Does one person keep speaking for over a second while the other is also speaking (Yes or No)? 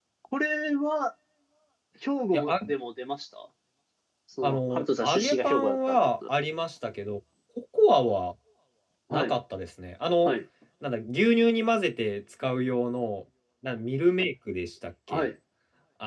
Yes